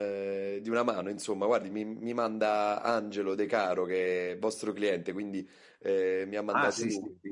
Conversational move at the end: taking over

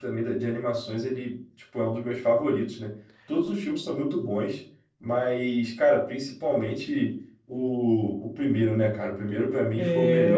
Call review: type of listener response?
taking over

